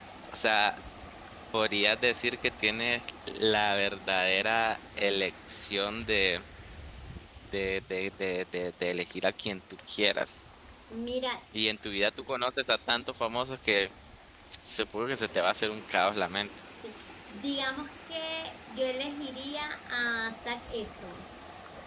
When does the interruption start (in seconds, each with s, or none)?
none